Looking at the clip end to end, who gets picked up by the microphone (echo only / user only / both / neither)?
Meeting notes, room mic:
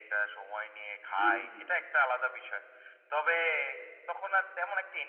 both